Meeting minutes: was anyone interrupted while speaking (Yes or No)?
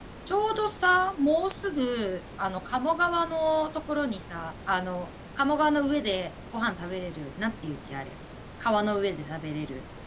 No